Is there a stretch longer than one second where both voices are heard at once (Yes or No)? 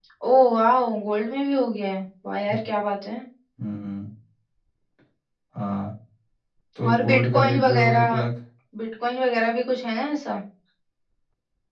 Yes